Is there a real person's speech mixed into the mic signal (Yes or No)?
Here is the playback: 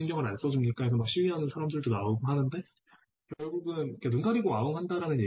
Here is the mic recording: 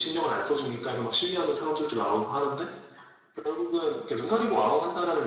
No